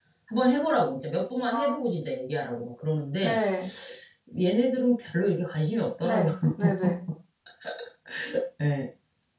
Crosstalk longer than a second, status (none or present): none